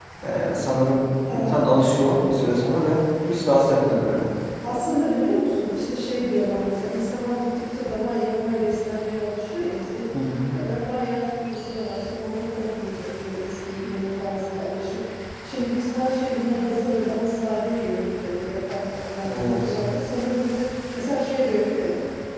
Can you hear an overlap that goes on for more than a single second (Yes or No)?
No